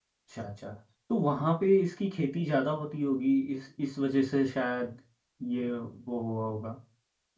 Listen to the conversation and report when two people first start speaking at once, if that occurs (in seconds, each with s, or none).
none